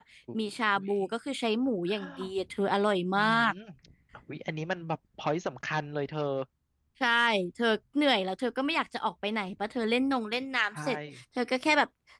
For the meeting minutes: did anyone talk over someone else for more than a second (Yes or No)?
No